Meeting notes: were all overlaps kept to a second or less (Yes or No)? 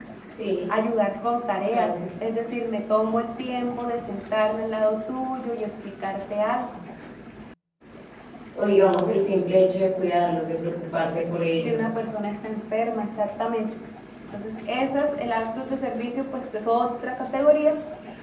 Yes